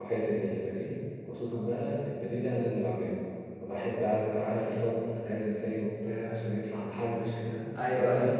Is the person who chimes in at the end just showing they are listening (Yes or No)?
Yes